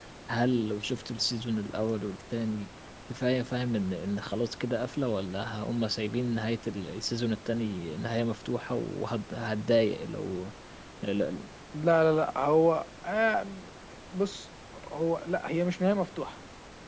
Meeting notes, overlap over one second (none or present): none